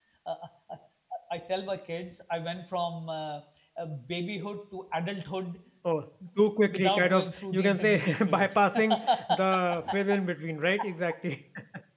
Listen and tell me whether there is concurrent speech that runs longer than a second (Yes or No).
Yes